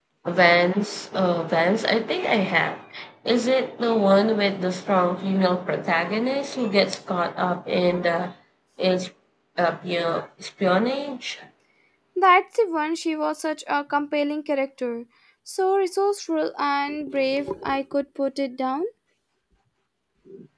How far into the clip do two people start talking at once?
none

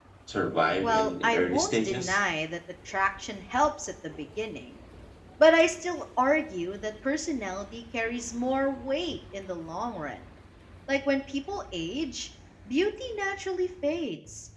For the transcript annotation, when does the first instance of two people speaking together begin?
0.8 s

